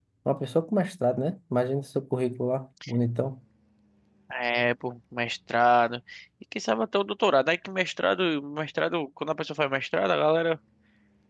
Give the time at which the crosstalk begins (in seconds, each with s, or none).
none